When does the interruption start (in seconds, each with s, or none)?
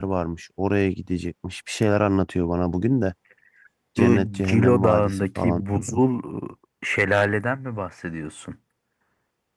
4.0 s